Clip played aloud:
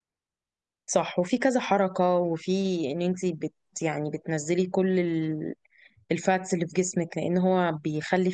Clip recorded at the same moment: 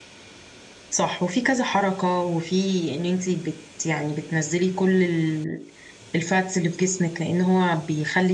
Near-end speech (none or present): none